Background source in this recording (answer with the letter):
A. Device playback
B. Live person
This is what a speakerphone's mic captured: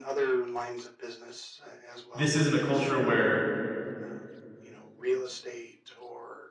A